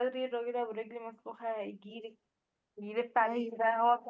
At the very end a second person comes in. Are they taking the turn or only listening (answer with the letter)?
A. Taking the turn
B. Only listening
B